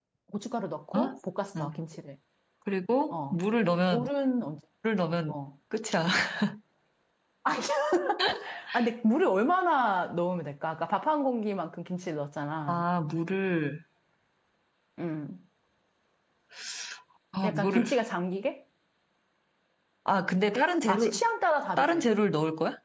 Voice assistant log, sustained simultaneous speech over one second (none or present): none